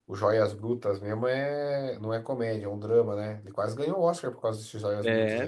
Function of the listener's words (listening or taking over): taking over